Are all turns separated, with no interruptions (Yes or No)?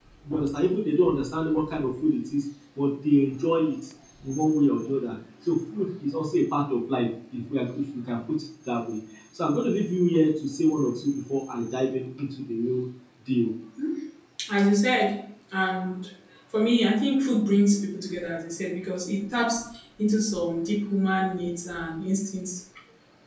Yes